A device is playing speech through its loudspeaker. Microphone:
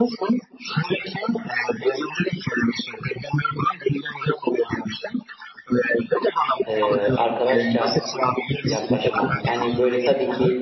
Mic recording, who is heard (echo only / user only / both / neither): both